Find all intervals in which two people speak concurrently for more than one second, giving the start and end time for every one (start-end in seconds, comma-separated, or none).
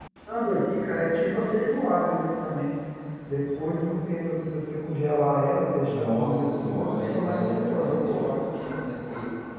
5.8-8.3